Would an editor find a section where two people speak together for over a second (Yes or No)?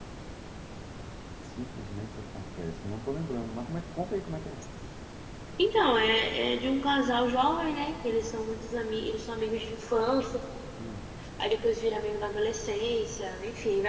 No